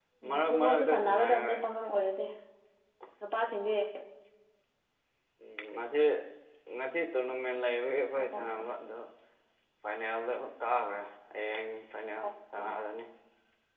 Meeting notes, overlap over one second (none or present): present